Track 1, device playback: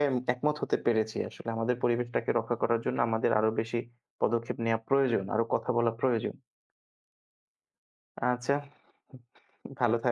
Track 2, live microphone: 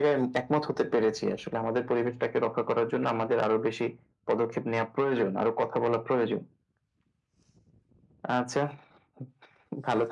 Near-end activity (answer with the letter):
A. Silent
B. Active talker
A